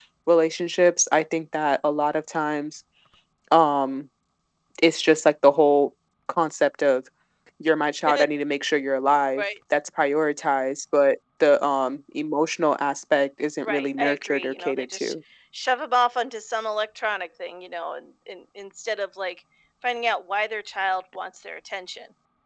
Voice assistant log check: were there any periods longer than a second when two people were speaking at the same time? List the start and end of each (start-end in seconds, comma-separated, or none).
13.6-15.1